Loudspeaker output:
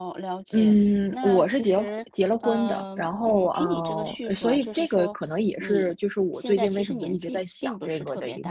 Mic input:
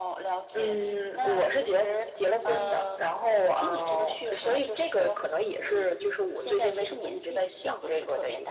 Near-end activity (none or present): none